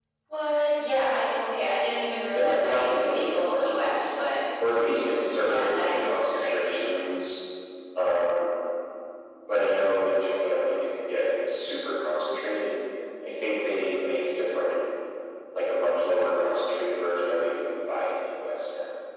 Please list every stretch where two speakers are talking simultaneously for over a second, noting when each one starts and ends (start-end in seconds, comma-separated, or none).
2.4-3.7, 5.4-6.9